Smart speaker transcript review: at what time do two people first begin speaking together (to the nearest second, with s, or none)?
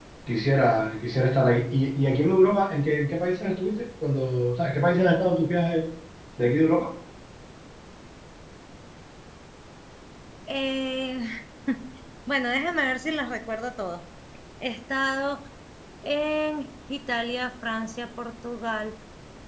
none